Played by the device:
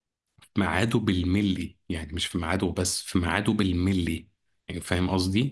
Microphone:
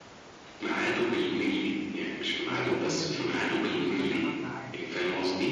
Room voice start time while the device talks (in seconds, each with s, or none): 2.4 s